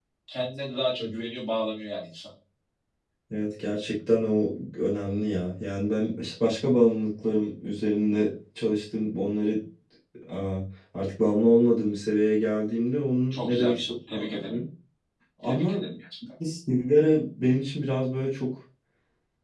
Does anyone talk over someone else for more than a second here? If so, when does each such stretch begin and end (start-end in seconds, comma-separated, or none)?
13.3-14.6